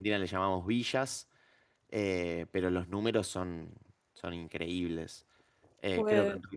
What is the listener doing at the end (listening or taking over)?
listening